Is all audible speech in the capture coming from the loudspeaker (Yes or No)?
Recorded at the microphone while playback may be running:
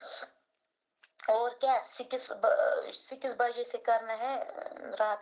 Yes